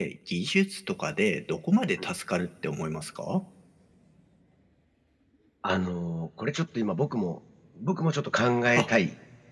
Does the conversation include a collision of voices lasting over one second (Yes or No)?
No